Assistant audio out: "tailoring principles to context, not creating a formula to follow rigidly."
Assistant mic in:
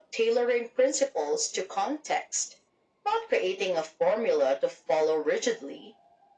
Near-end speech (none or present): none